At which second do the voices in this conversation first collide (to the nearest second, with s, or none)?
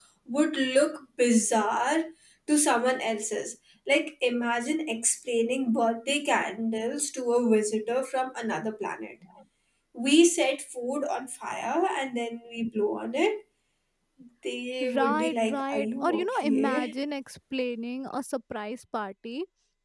15 s